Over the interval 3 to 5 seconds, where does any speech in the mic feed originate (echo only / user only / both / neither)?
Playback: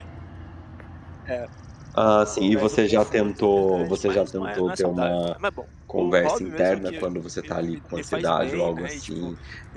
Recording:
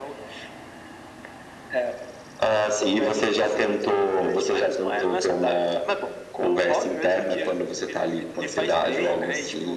echo only